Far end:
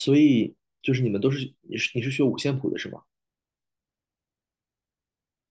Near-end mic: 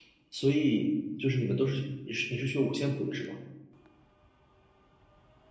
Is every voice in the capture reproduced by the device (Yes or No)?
Yes